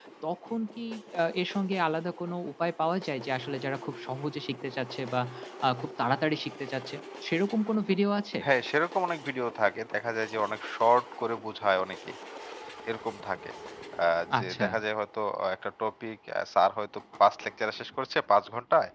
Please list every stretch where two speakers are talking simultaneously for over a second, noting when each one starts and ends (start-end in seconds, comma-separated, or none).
none